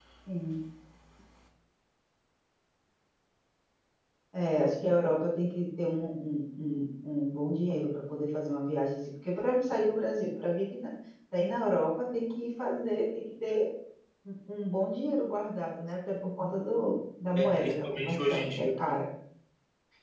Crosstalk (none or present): present